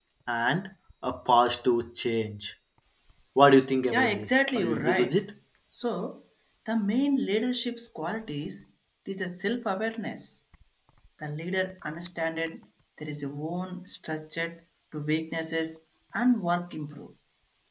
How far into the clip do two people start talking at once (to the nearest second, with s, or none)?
4 s